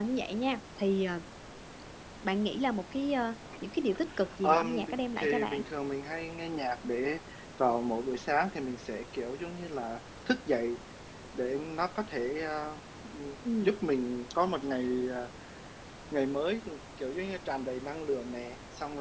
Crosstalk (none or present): present